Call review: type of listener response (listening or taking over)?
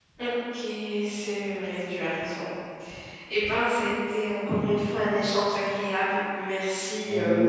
taking over